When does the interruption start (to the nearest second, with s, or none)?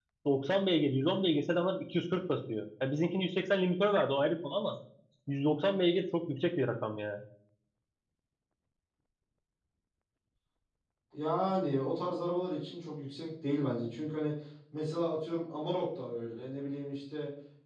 none